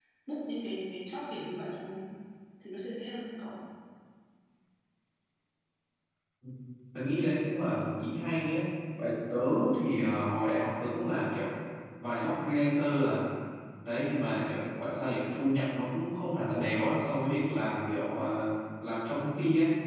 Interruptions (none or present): none